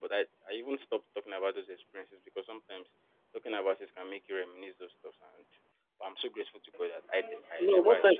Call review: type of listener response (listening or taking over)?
taking over